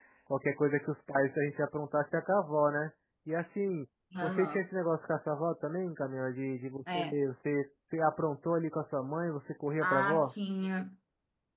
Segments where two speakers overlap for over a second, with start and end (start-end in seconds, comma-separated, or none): none